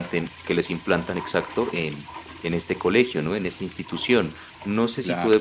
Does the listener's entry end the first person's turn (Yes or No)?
No